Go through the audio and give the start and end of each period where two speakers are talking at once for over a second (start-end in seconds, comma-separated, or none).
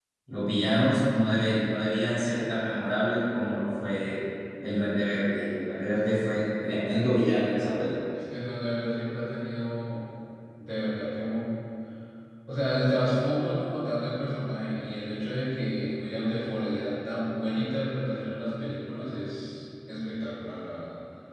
none